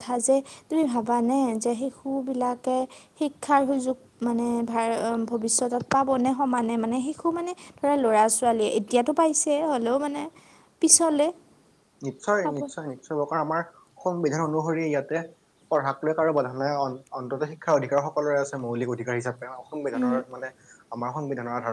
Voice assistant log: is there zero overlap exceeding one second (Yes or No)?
Yes